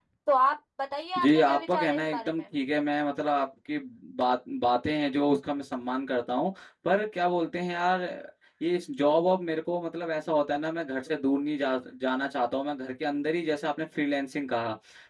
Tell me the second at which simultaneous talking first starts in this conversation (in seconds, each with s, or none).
1.2 s